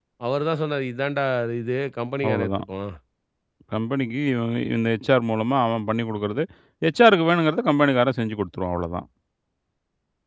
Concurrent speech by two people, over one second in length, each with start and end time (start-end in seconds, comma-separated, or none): none